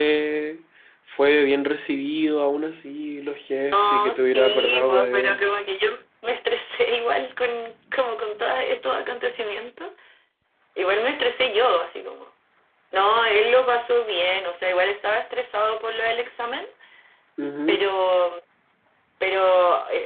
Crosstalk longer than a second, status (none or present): present